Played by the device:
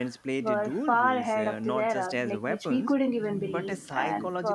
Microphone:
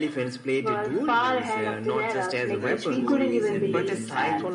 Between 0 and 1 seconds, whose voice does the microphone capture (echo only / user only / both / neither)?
echo only